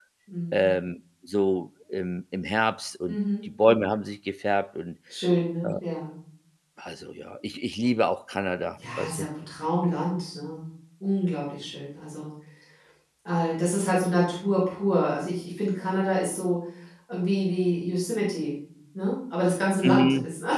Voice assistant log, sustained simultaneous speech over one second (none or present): none